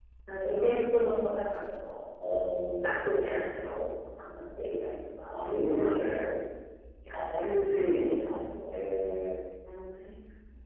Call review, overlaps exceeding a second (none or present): present